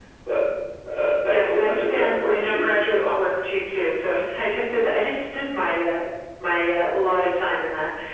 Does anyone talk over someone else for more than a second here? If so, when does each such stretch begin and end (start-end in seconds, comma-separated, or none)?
1.3-3.1